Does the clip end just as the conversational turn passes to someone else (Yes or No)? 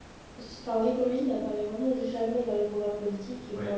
No